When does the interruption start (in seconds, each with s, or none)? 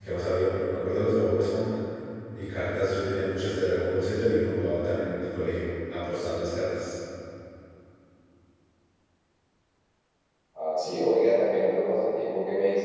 none